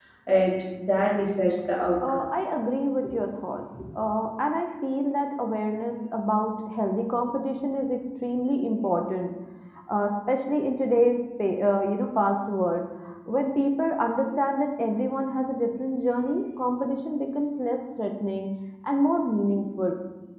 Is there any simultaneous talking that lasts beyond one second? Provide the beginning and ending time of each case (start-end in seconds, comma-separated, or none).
none